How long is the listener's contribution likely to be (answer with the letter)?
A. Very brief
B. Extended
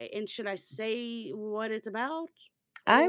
B